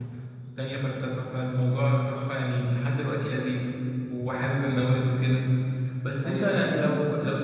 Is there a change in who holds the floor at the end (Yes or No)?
No